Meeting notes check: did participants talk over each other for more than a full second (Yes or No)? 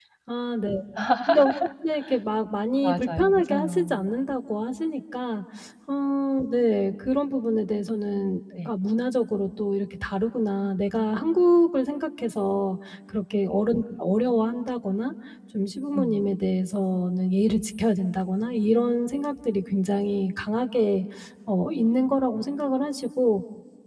Yes